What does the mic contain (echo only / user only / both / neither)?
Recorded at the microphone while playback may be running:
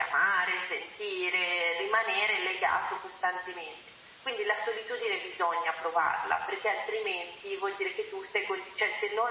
echo only